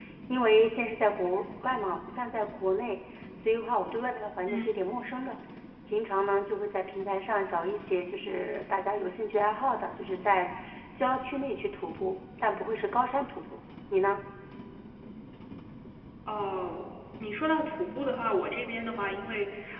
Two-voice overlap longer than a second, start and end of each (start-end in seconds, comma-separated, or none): none